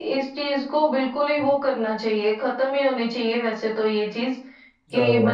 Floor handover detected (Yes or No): No